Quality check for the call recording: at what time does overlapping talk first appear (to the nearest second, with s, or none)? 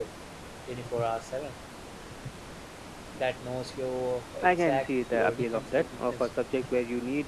4 s